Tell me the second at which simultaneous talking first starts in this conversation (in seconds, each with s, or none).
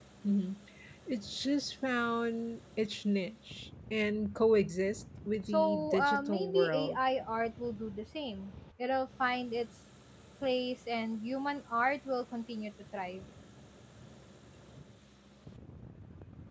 5.5 s